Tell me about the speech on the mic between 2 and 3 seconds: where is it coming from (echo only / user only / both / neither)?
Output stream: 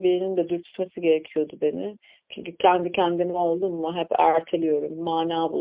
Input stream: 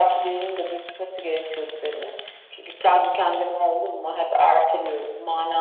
echo only